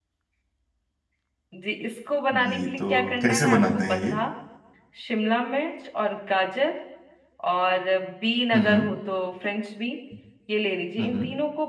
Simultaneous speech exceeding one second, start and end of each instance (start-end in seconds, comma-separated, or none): 2.4-4.1